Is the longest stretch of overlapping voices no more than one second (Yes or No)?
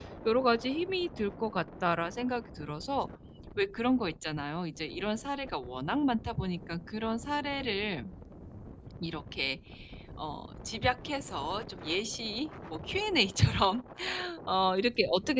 Yes